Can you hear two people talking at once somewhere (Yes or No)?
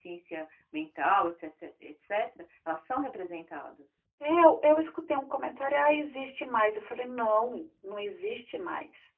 No